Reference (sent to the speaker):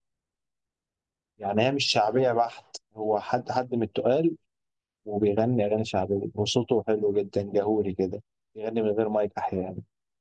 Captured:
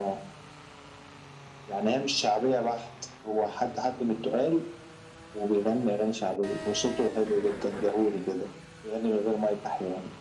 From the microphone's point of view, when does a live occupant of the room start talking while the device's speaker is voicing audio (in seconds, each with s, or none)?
none